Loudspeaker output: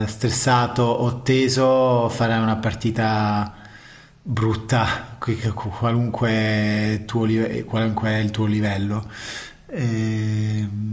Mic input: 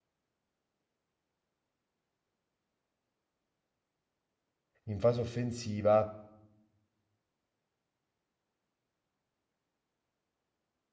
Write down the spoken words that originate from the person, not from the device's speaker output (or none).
in fase offensiva,